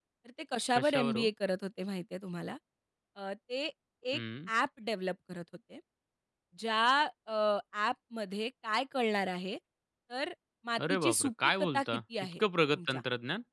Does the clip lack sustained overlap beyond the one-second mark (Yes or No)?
No